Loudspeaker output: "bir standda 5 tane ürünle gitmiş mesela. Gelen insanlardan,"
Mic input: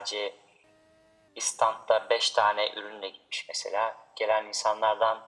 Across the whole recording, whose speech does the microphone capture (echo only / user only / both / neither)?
echo only